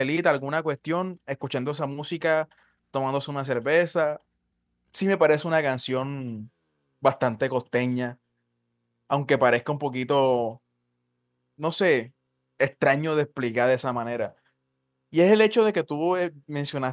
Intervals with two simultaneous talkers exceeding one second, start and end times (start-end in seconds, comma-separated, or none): none